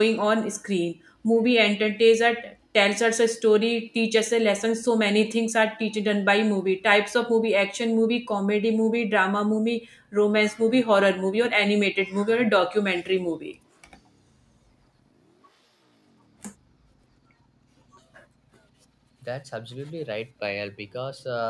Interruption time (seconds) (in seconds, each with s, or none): none